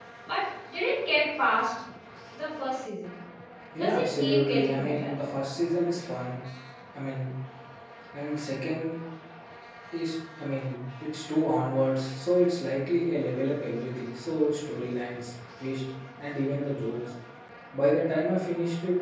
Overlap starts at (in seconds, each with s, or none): 3.8 s